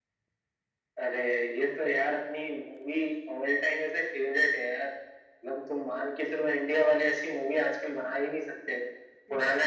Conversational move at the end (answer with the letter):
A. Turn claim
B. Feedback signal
B